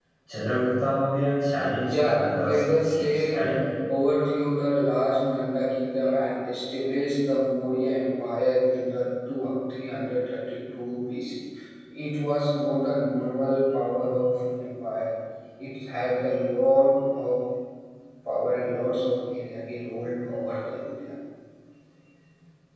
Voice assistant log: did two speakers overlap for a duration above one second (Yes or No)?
Yes